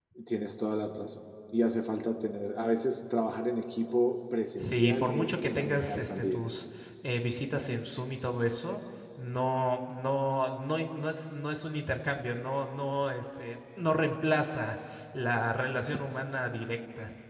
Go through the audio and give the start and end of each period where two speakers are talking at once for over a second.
4.6-6.4

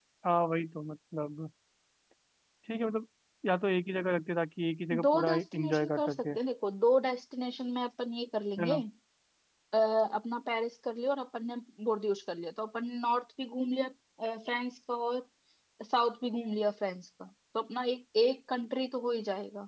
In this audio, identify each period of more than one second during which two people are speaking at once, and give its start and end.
5.0-6.3

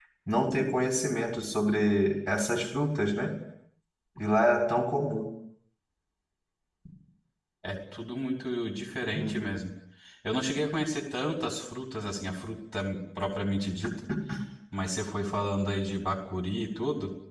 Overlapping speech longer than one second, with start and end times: none

